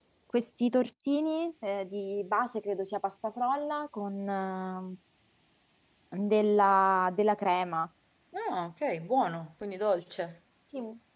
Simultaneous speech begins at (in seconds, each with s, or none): none